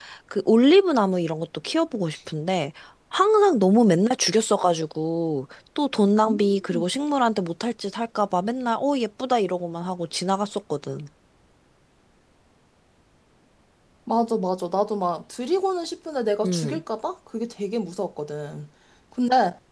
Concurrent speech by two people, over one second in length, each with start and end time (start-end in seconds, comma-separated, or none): none